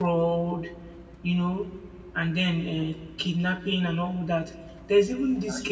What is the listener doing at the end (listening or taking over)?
listening